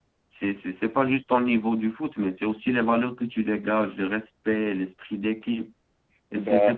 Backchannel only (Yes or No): Yes